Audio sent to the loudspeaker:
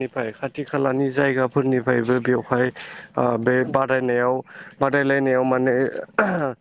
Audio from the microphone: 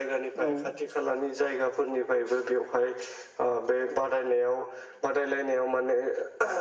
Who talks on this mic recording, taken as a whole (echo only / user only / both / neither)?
both